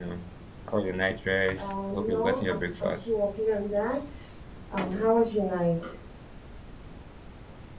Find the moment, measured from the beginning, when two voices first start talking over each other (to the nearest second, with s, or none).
2 s